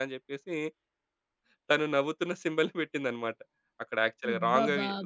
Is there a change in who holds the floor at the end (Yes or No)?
No